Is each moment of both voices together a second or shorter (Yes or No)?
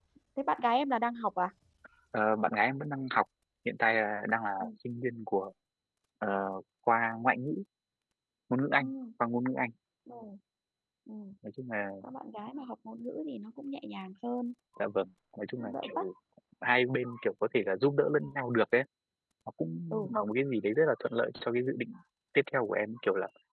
Yes